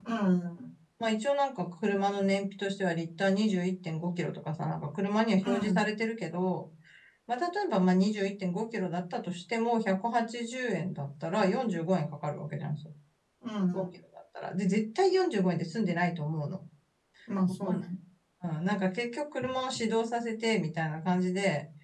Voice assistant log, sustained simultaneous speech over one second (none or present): none